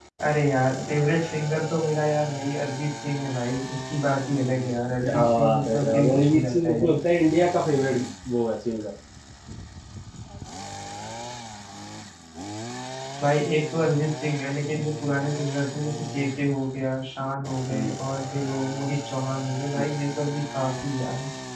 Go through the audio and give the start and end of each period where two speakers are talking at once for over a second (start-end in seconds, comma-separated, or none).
5.0-7.0